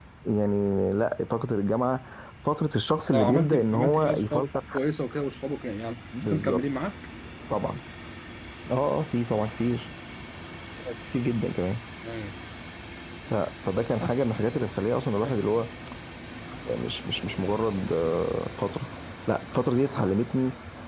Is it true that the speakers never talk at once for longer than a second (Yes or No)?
No